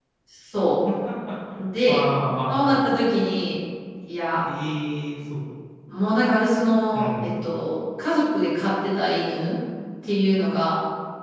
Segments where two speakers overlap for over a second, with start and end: none

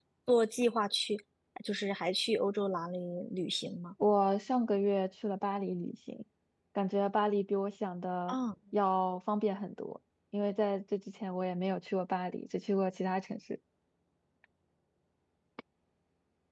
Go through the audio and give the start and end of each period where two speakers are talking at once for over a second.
none

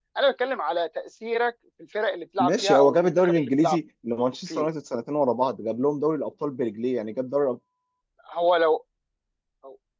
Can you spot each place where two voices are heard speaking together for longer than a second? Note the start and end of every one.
2.4-3.8

